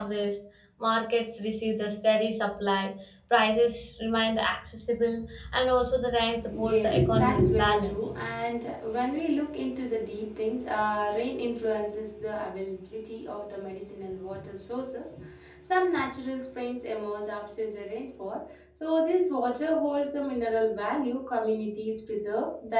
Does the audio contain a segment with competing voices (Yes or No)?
Yes